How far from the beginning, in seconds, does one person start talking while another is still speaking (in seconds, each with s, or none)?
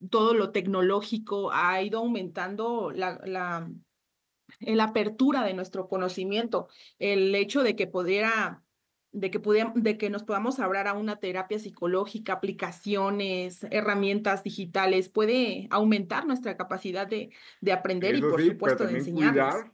18.0 s